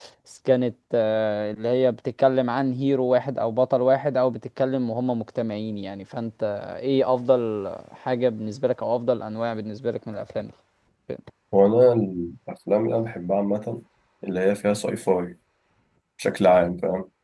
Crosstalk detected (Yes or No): No